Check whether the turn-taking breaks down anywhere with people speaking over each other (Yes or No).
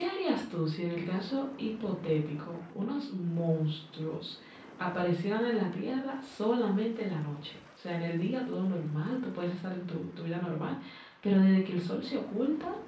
No